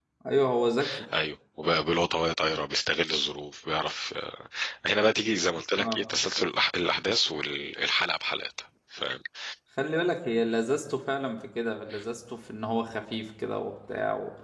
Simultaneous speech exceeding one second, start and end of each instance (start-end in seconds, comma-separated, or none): none